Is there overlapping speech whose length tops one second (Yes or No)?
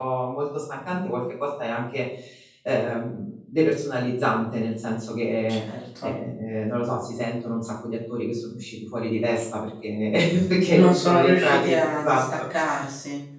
Yes